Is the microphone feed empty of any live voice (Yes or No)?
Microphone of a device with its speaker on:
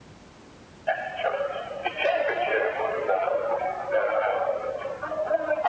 Yes